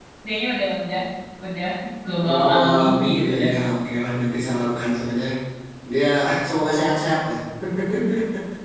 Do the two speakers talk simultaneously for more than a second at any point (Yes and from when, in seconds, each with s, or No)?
Yes, from 2.2 s